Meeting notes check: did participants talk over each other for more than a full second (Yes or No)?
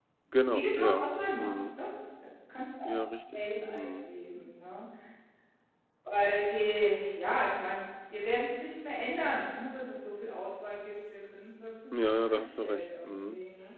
Yes